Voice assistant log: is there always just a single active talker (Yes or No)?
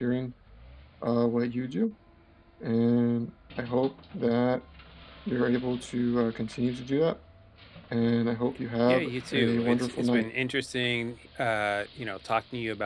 No